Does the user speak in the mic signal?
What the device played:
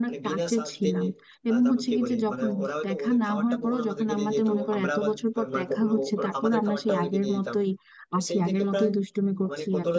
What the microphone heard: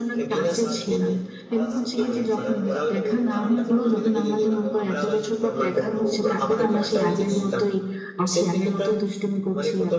Yes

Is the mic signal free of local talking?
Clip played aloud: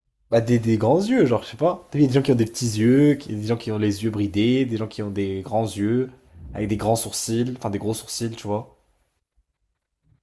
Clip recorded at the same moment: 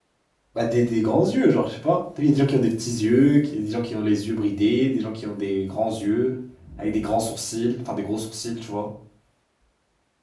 Yes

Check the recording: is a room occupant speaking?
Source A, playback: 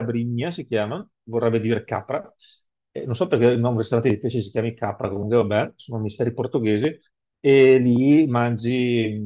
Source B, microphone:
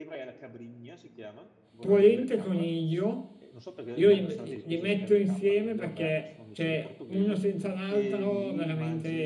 Yes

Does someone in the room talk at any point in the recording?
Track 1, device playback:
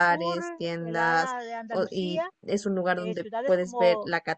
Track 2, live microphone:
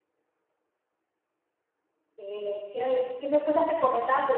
Yes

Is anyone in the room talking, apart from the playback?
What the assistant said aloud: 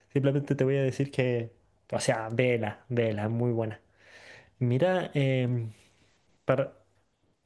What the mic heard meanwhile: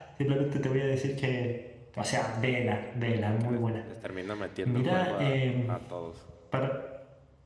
Yes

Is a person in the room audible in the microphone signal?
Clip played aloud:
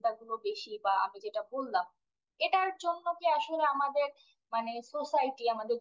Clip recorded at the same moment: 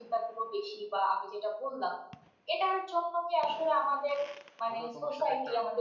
Yes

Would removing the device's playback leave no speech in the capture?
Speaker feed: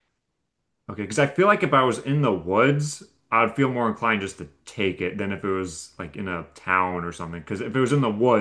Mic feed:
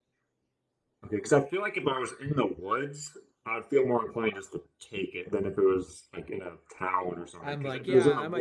No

